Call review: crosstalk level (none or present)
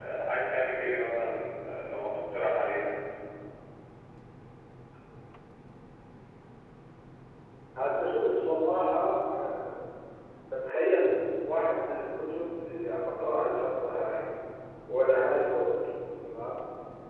none